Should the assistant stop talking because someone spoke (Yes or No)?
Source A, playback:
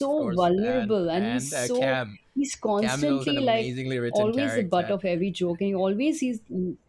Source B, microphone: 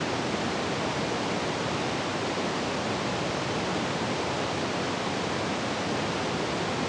No